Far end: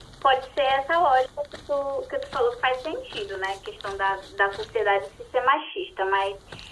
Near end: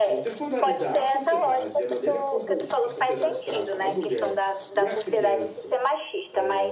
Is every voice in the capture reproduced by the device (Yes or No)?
No